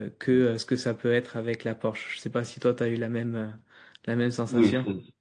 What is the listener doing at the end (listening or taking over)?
taking over